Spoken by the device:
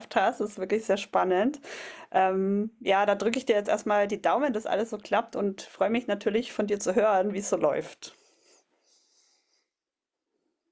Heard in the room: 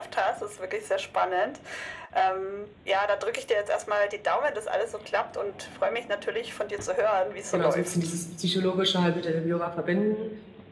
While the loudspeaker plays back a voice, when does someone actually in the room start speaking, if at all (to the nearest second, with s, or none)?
7 s